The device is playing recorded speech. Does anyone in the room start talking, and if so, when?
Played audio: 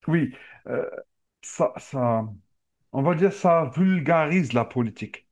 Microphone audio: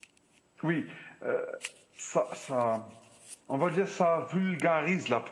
none

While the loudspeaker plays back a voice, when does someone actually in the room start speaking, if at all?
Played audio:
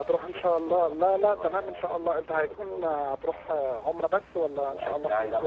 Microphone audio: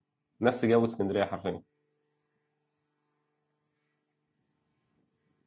0.4 s

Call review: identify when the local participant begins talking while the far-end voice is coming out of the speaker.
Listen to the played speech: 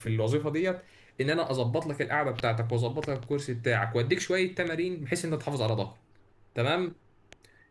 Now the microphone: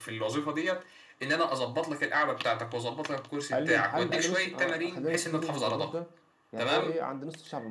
3.5 s

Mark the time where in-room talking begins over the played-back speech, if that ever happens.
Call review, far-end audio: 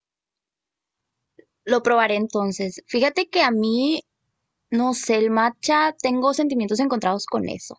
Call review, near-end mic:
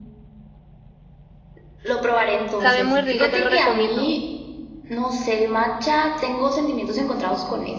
2.6 s

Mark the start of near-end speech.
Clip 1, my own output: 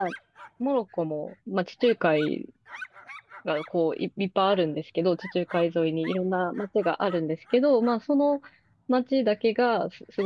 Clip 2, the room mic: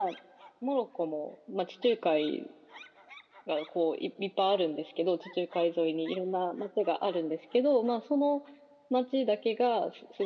none

